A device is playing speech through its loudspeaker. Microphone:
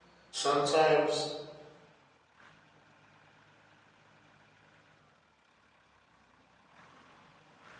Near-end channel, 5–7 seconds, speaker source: neither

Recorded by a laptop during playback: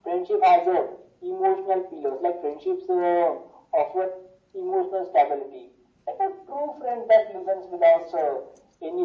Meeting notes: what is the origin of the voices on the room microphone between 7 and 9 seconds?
echo only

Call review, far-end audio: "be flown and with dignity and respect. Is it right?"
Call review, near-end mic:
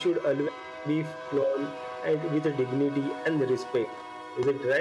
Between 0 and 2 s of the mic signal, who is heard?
echo only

